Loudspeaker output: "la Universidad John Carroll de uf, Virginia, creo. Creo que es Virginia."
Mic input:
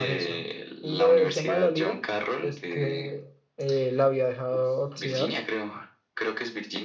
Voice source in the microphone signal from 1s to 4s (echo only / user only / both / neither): both